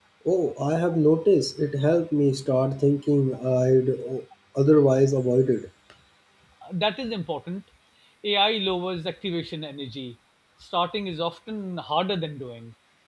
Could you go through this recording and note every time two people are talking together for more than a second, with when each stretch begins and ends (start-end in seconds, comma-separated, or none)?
none